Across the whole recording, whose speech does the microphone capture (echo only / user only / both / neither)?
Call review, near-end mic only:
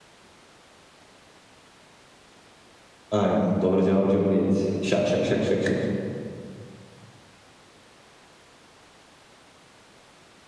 user only